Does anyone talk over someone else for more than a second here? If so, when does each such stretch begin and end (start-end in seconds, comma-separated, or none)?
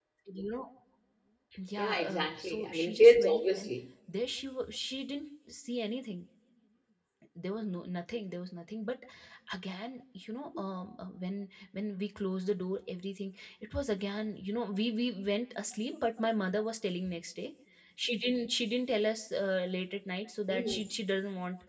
1.8-3.7